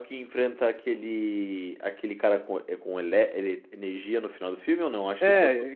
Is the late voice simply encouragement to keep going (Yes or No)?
No